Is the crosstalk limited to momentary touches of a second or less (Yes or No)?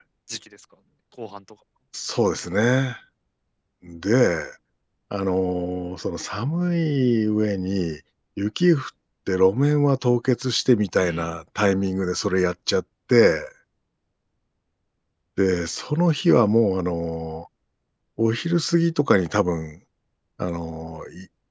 Yes